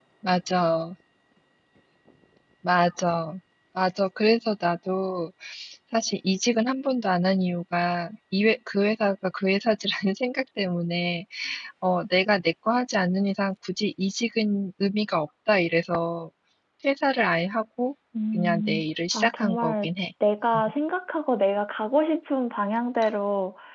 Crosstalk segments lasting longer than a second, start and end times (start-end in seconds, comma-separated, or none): 18.3-19.9